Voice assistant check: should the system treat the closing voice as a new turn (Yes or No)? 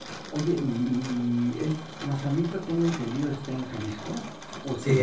Yes